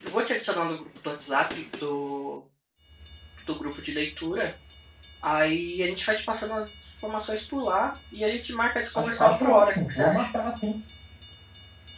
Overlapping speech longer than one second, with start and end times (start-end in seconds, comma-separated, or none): 8.9-10.3